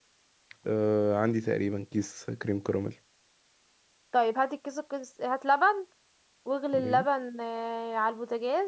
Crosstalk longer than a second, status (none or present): none